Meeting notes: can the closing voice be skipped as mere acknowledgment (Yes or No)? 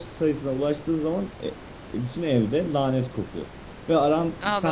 Yes